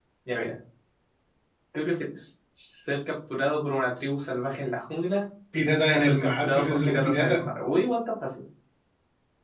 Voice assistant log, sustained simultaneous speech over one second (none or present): present